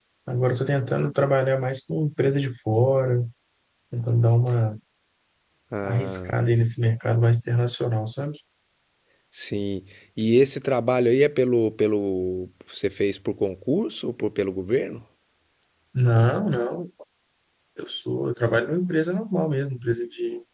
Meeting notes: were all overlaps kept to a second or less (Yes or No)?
Yes